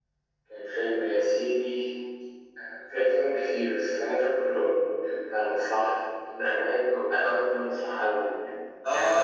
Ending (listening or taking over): taking over